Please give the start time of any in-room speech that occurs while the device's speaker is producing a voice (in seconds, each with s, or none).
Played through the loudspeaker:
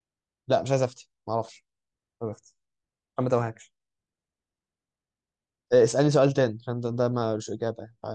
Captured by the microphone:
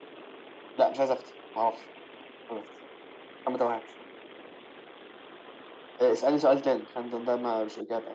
none